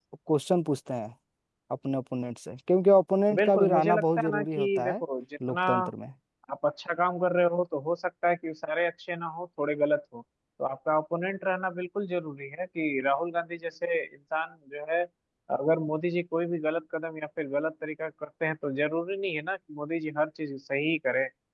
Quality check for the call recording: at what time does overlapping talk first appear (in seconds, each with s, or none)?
3.3 s